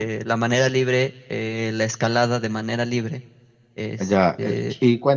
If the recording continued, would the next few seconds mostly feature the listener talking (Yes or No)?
Yes